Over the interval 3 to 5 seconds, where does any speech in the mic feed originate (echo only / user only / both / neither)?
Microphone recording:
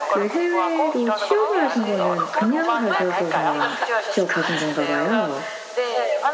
both